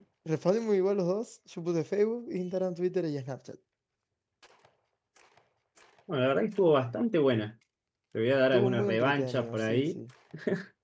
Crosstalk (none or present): present